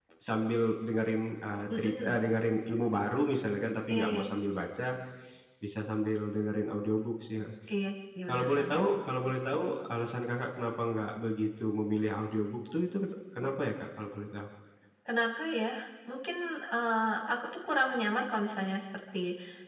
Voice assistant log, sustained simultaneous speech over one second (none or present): none